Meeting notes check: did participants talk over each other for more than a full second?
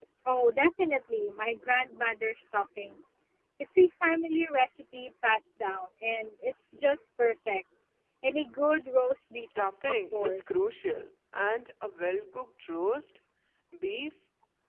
Yes, from 9.4 s

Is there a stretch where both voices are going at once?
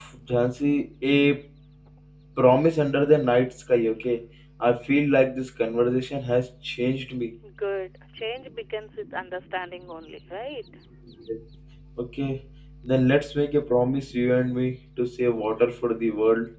No

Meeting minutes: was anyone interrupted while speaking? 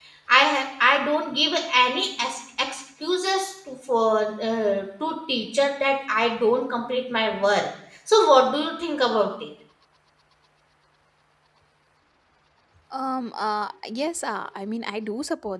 No

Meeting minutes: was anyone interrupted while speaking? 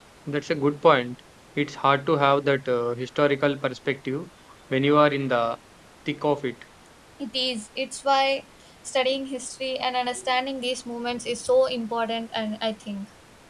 No

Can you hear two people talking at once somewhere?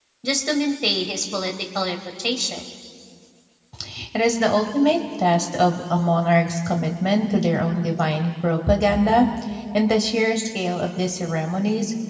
No

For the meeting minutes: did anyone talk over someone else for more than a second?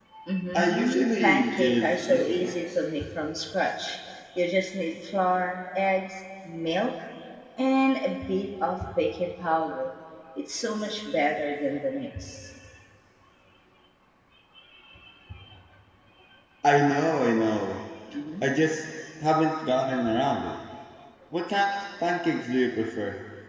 Yes, from 0.5 s

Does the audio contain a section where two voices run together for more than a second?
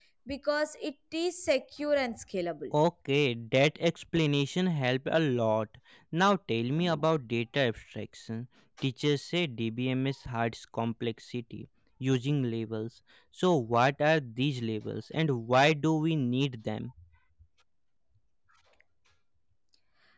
No

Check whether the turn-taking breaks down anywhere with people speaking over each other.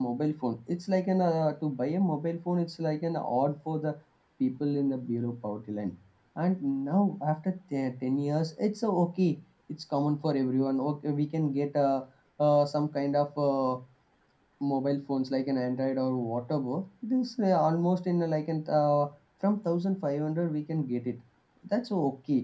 No

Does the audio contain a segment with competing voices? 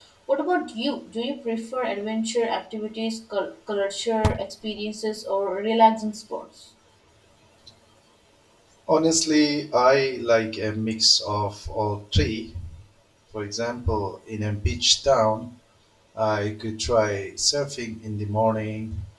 No

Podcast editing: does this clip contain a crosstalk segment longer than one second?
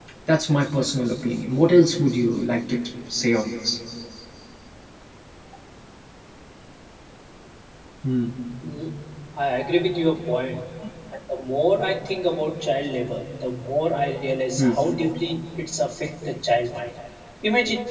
No

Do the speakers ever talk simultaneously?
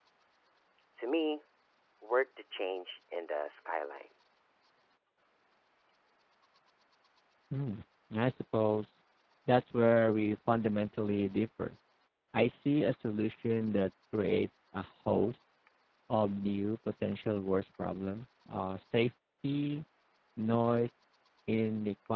No

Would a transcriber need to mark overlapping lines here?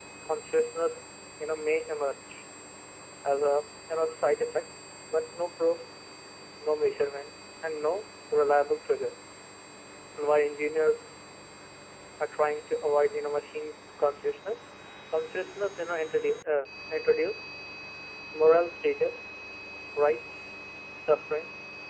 No

